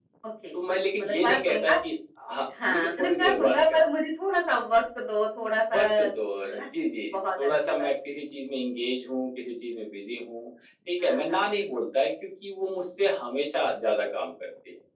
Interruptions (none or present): present